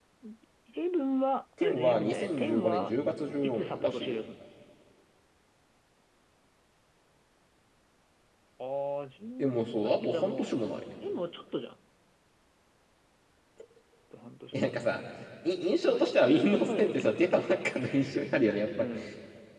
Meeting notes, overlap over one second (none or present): present